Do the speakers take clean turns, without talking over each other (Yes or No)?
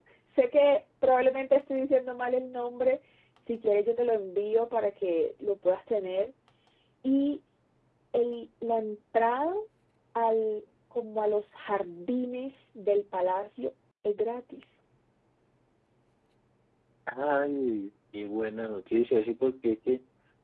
Yes